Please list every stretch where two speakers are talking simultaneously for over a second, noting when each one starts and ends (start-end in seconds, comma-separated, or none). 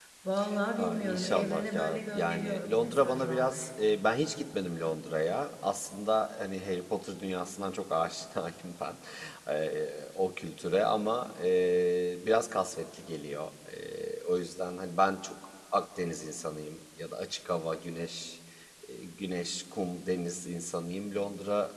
0.8-3.7